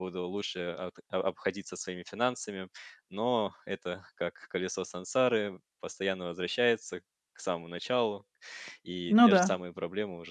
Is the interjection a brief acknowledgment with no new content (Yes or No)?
Yes